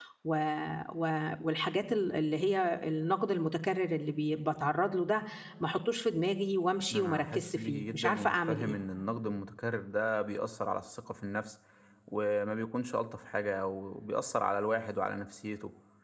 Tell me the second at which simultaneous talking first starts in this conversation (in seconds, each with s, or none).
6.9 s